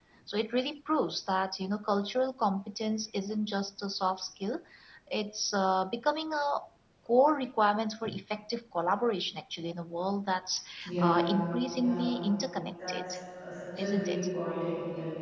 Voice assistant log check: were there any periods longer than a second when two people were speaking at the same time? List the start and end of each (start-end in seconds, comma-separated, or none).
11.7-12.9